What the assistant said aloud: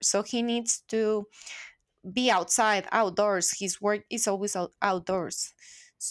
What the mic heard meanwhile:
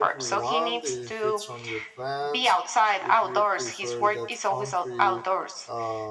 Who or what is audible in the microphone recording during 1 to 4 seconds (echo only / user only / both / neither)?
both